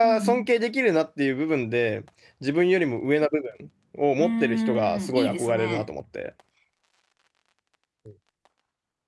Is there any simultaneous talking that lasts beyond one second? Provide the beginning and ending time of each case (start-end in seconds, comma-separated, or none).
4.2-5.8